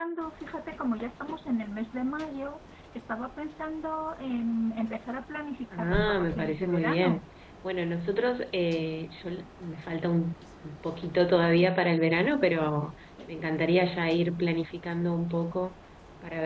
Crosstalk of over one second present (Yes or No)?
Yes